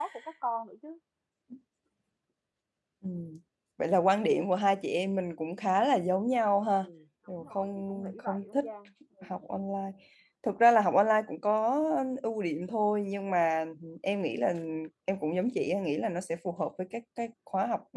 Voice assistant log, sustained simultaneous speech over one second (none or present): present